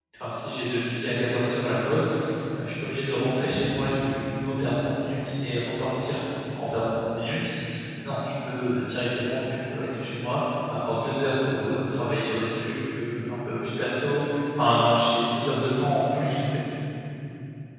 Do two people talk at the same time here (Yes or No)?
No